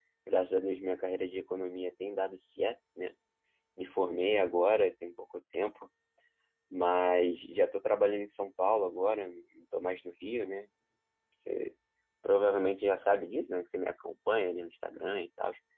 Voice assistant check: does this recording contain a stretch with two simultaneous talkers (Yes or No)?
No